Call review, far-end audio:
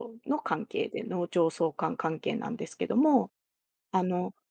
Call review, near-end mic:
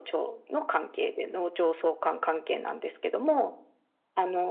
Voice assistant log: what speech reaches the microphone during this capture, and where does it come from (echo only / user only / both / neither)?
echo only